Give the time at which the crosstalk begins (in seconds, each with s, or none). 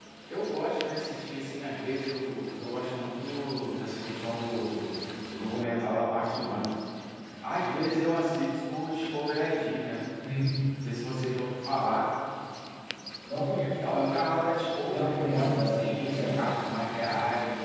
14.9 s